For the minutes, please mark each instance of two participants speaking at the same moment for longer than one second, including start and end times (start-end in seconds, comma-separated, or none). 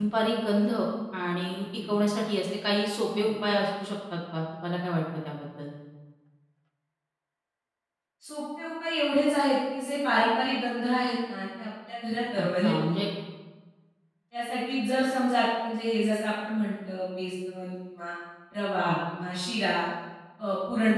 none